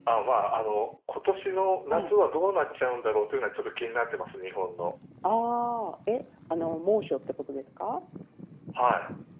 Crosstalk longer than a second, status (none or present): none